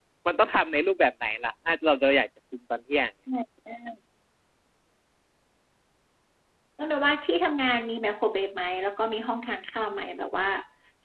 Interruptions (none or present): none